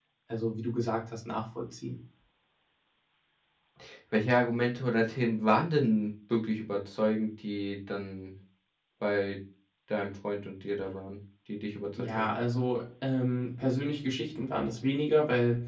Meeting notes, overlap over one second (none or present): none